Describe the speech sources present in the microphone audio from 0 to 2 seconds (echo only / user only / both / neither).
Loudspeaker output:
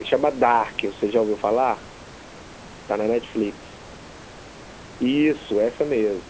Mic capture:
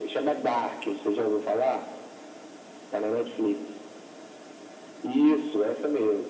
echo only